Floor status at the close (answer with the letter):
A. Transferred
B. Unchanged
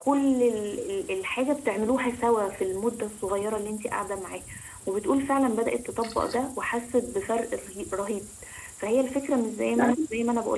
B